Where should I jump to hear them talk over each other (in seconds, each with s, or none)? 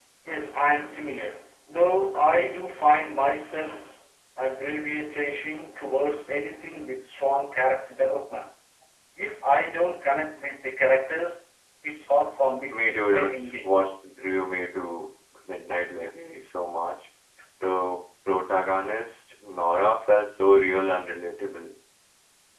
12.7 s